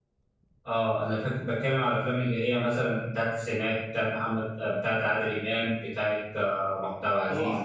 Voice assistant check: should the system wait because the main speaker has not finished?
No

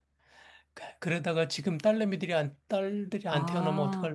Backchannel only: No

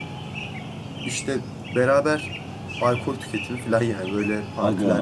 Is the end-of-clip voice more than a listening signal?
Yes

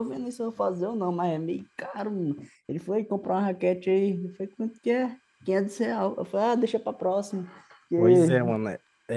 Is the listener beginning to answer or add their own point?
Yes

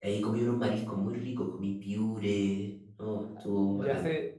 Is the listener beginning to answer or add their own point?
Yes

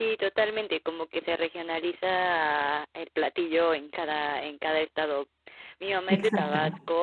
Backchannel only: Yes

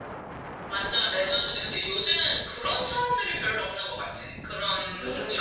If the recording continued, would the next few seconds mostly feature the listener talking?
No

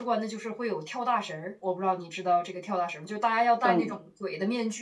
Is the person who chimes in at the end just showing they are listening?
Yes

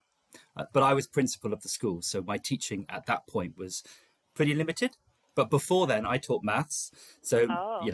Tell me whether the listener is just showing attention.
Yes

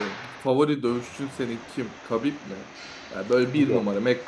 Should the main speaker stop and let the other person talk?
No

